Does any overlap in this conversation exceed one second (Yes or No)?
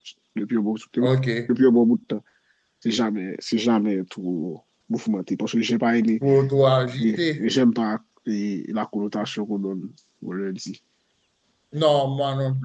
No